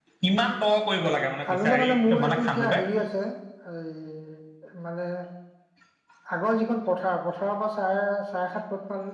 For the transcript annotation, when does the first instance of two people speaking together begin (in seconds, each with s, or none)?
1.4 s